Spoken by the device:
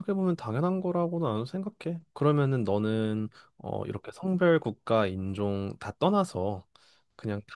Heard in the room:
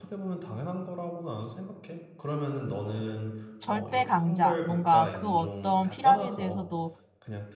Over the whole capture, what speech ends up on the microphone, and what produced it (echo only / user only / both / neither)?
both